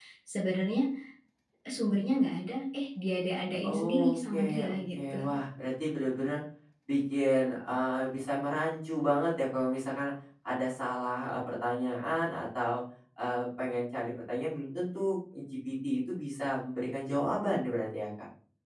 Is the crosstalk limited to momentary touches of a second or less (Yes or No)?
No